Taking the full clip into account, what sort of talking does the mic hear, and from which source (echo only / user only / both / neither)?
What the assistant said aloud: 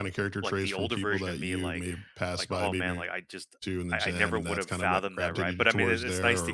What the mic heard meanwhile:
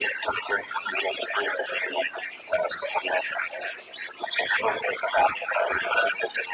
echo only